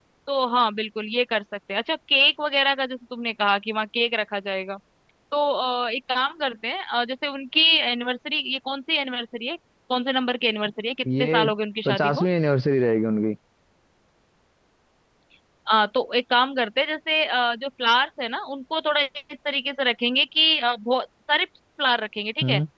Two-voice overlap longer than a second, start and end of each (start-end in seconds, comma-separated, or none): none